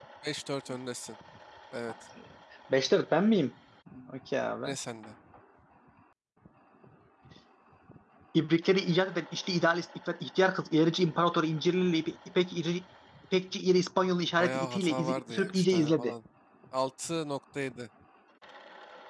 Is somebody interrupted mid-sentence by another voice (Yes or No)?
Yes